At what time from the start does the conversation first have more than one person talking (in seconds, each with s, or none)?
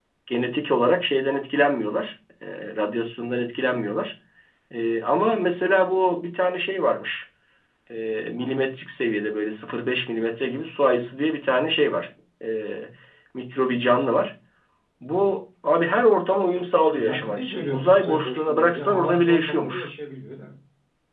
16.9 s